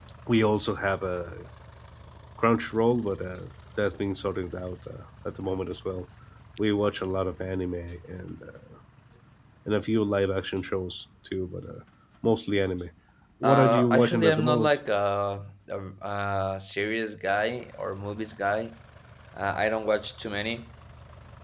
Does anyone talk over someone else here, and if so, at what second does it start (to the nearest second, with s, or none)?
13 s